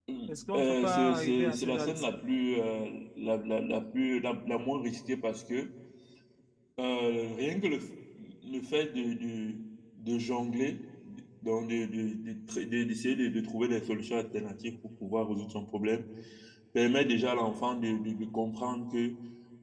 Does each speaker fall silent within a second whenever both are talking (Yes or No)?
No